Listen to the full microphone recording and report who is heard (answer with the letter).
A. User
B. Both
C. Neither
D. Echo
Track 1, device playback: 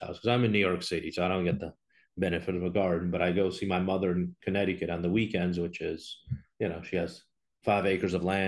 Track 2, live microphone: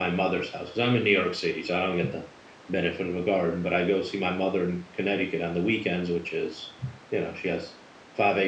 D